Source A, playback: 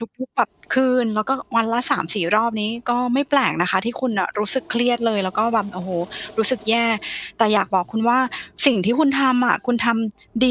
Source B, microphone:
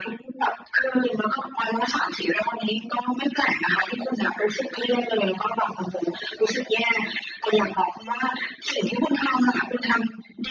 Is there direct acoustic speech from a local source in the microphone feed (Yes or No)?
No